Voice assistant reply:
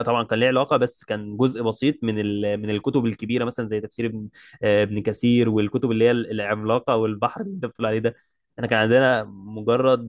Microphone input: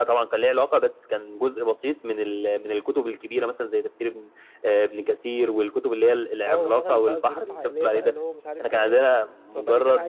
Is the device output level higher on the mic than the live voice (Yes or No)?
Yes